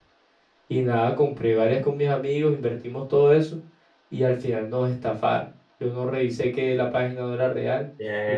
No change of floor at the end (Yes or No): No